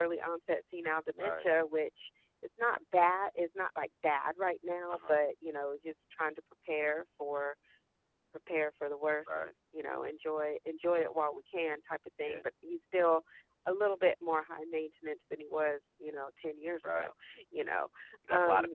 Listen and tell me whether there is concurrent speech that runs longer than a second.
No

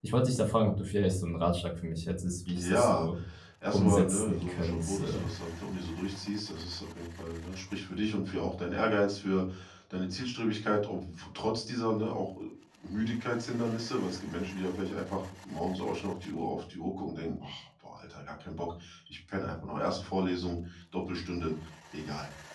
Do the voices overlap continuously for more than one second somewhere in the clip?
Yes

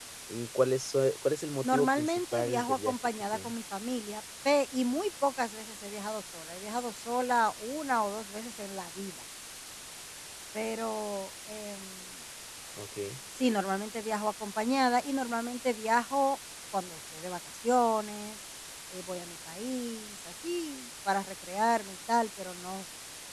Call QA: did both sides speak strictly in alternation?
No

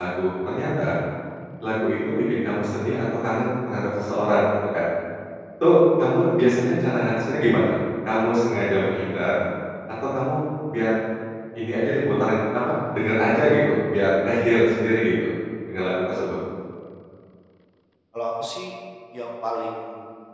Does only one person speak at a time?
Yes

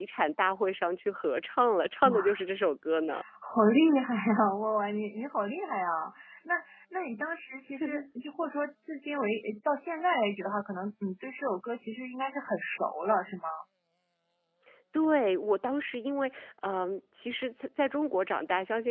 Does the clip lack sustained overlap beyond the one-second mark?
Yes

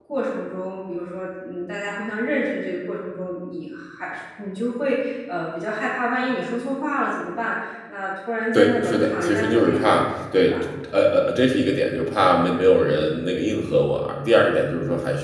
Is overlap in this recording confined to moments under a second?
No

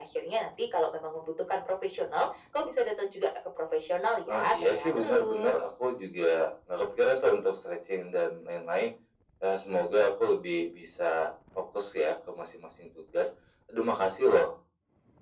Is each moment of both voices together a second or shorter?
No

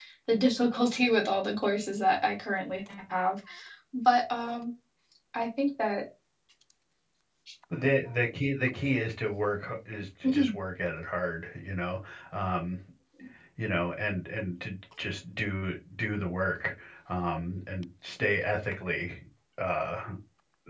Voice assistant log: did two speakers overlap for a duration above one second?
No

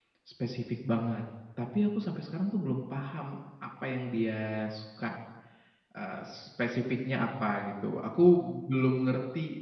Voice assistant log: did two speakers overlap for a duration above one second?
No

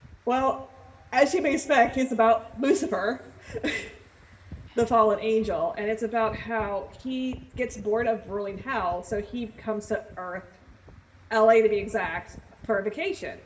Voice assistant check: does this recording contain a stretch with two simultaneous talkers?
No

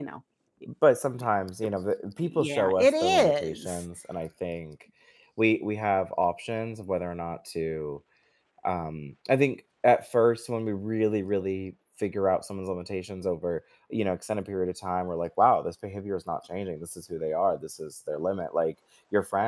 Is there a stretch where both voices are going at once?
Yes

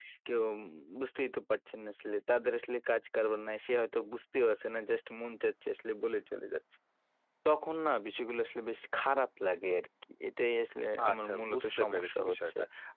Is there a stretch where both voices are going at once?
Yes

